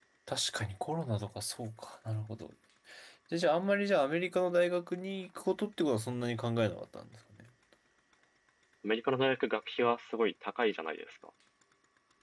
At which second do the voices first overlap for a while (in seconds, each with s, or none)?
none